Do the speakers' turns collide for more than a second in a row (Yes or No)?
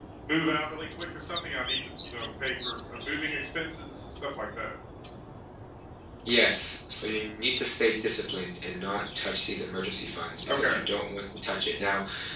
No